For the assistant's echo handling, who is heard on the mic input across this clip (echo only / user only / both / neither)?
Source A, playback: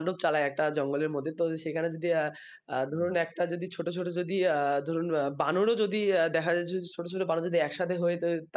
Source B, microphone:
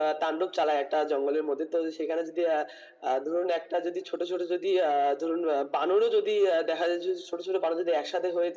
echo only